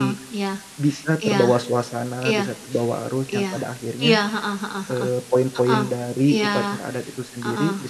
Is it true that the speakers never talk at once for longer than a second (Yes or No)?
Yes